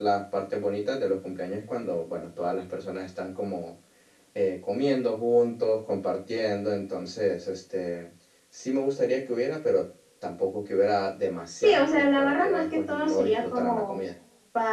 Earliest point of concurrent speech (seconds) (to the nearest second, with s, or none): 12 s